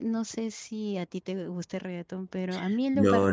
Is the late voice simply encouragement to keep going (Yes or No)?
No